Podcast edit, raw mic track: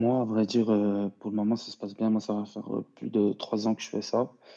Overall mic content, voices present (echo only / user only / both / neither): echo only